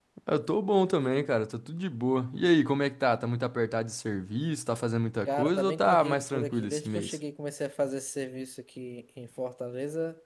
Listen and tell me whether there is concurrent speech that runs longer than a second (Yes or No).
Yes